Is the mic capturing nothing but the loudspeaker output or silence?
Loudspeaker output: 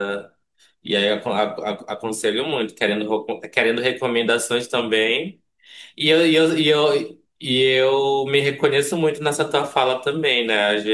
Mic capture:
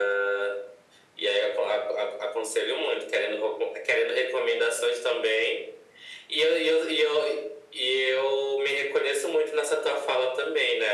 Yes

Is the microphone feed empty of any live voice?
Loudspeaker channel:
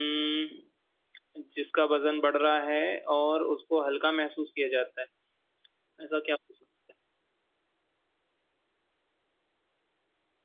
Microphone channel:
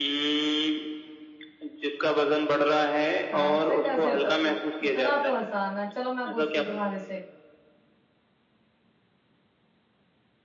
No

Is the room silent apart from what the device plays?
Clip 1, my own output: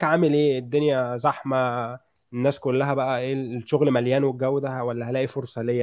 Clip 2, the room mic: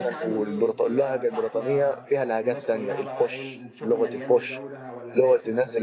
No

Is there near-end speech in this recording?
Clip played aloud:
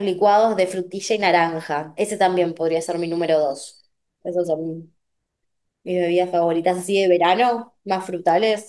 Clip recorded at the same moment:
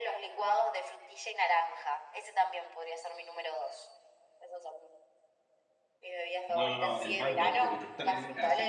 Yes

